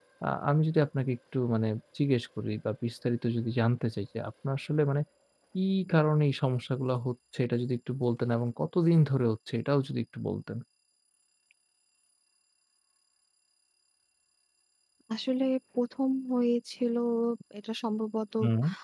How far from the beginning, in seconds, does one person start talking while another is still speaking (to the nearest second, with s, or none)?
none